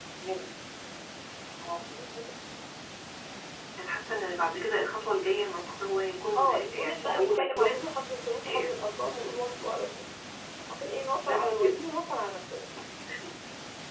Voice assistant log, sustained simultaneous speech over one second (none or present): present